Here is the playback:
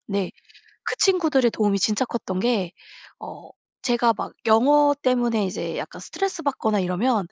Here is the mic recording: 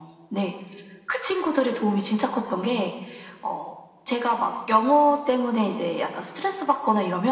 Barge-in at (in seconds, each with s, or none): none